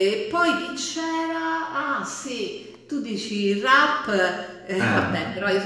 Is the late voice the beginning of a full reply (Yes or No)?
No